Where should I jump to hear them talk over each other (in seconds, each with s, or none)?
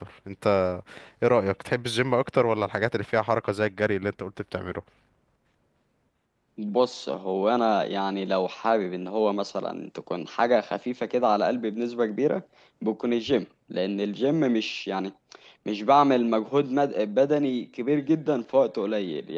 none